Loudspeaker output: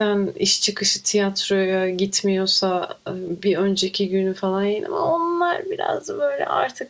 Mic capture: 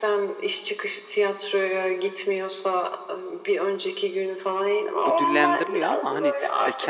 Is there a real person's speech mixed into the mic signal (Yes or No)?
Yes